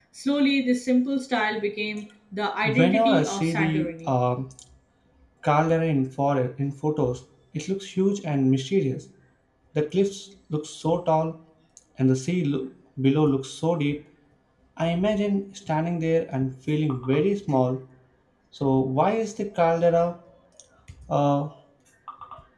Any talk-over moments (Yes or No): Yes